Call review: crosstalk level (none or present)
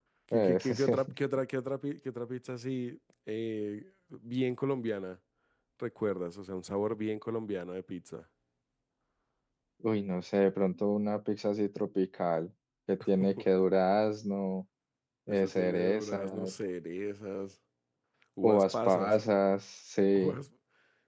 present